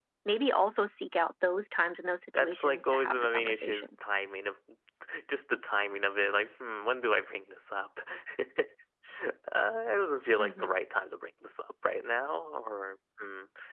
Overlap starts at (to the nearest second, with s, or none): 2 s